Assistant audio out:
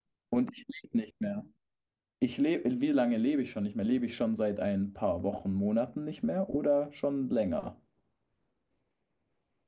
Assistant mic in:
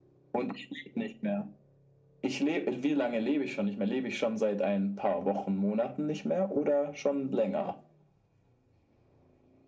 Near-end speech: none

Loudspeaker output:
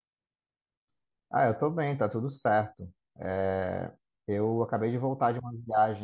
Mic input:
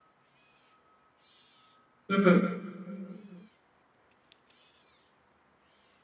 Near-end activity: present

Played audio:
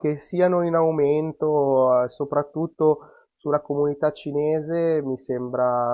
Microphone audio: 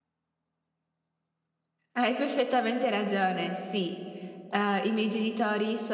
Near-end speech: present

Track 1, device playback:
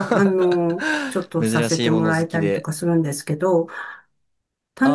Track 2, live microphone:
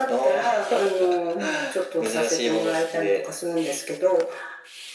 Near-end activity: present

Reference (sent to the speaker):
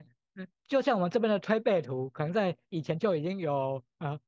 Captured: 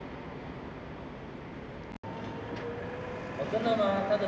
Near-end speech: present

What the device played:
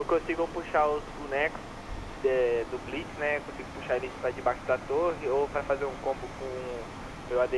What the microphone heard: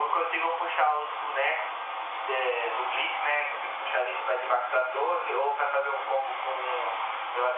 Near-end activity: none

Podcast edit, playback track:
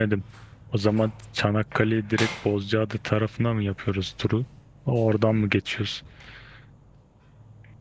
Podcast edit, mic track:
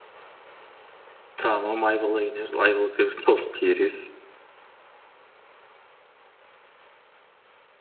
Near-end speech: present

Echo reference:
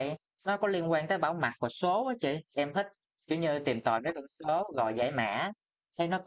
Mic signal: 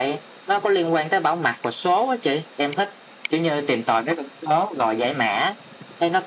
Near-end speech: none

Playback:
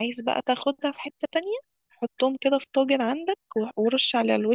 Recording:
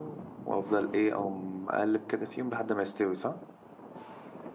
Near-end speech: present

